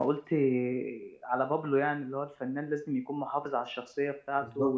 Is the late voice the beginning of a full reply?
No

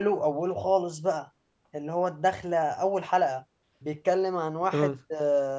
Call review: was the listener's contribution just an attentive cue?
Yes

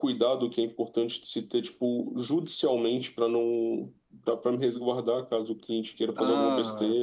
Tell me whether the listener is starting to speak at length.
Yes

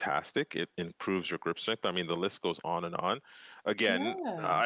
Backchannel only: Yes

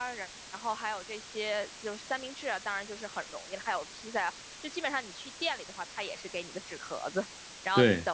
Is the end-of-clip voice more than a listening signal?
No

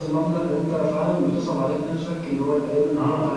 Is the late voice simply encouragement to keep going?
Yes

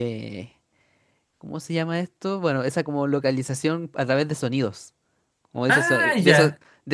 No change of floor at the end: Yes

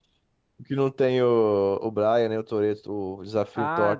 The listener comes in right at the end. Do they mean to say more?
Yes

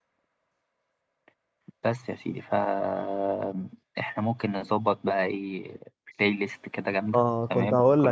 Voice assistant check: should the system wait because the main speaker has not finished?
No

